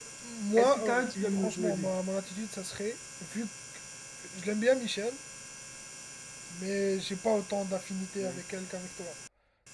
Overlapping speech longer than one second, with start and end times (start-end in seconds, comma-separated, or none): 0.6-1.9